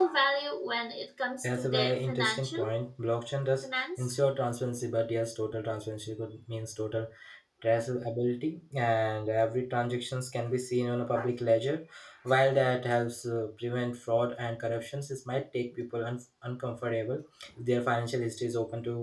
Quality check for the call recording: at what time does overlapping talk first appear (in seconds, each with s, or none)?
1.4 s